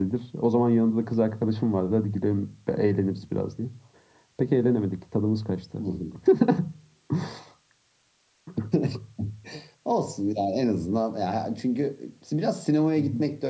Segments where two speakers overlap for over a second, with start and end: none

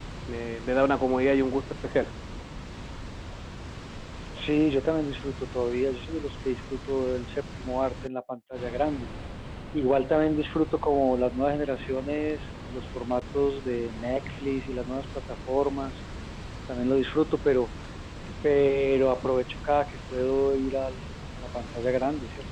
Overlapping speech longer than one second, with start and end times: none

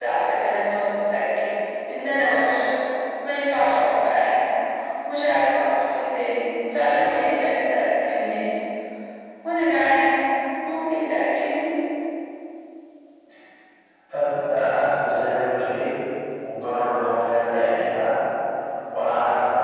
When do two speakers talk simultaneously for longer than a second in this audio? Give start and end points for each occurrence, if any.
none

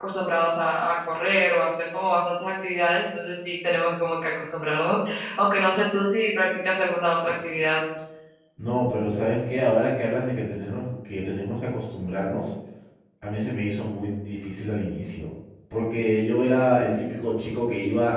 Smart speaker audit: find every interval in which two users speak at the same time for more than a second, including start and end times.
none

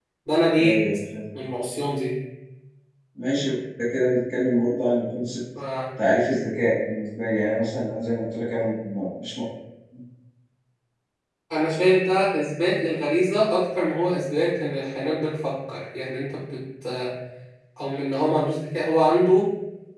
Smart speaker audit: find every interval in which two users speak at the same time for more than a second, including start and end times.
none

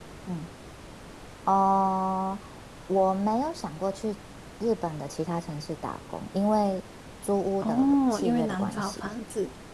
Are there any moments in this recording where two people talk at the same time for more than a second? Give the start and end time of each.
7.6-9.1

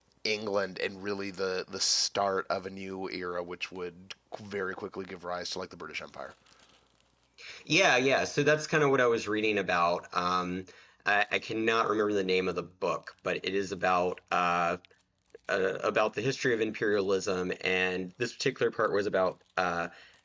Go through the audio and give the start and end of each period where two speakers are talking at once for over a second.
none

